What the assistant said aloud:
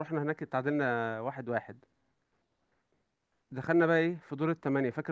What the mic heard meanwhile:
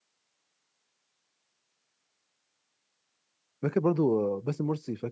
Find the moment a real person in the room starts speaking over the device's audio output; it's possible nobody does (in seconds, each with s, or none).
3.6 s